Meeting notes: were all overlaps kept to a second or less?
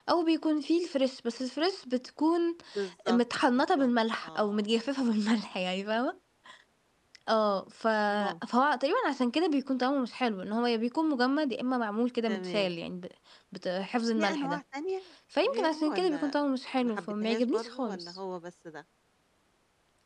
No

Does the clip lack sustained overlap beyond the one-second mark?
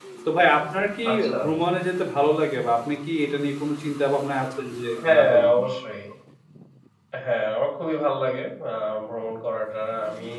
Yes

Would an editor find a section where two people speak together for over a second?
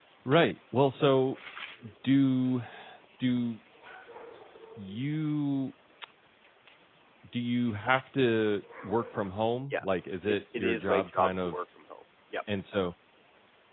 Yes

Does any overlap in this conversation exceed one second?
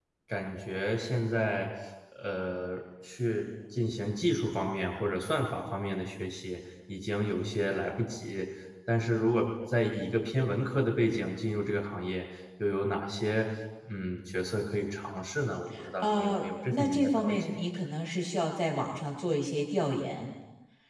Yes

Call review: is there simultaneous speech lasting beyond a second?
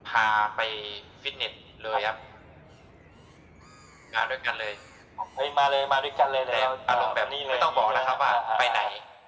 Yes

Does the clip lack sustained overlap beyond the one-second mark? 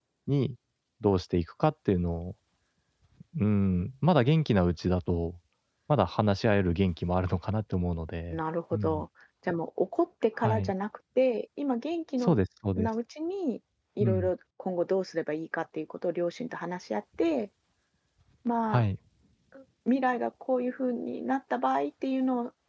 Yes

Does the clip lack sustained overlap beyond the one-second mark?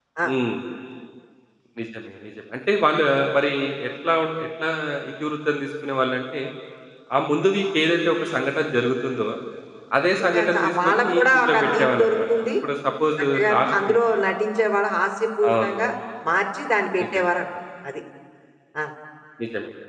No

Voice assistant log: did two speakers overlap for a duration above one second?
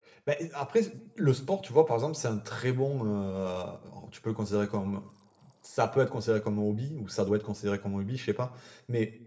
No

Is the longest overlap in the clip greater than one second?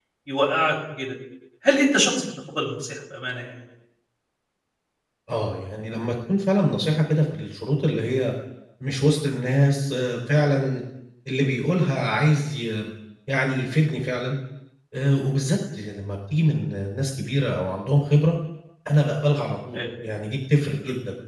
No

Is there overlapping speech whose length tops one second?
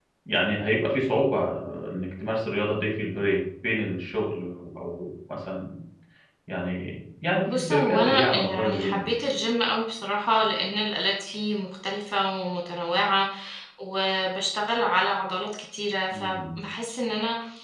Yes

